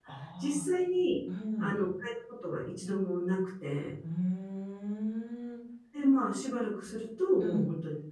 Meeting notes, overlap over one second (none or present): none